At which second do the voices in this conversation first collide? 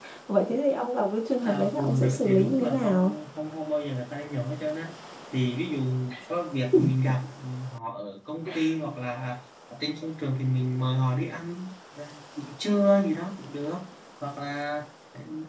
1.4 s

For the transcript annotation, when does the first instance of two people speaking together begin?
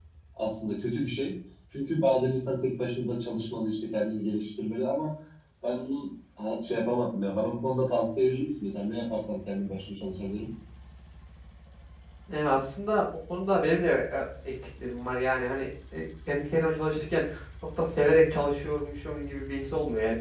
none

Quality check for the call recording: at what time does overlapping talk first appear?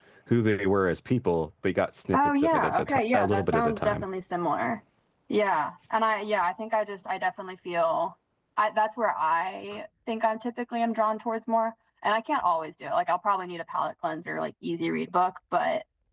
2.1 s

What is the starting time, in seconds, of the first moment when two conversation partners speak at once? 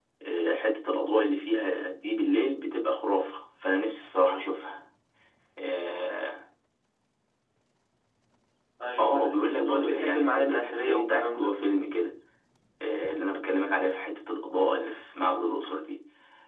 9.0 s

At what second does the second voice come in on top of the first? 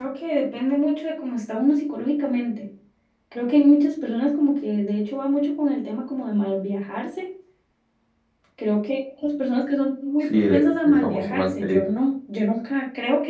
10.3 s

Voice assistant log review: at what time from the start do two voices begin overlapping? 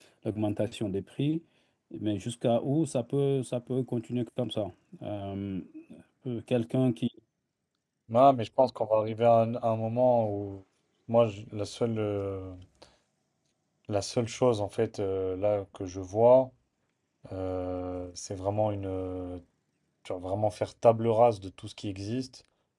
none

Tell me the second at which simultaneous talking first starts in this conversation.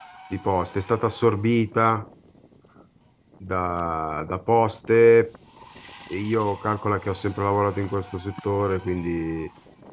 none

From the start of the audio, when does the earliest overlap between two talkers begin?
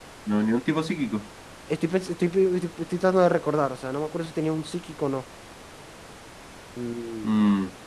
none

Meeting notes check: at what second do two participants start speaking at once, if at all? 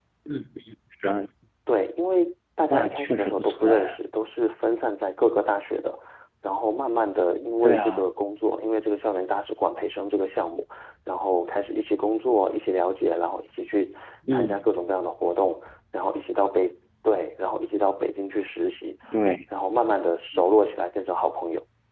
2.7 s

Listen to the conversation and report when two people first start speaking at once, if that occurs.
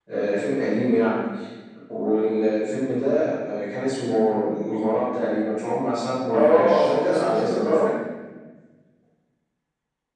6.3 s

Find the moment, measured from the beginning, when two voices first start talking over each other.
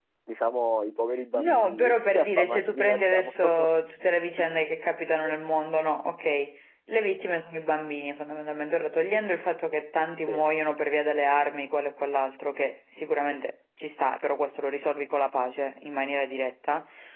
1.3 s

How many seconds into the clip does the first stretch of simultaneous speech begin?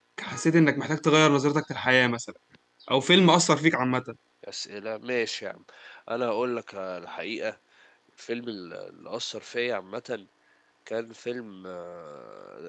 none

